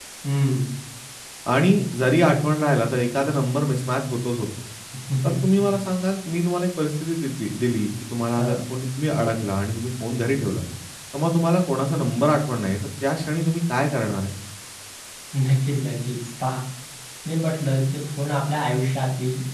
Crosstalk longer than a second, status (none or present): none